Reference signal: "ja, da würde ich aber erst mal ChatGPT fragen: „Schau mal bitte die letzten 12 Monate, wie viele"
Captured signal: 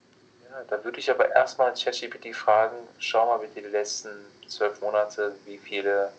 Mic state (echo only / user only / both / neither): echo only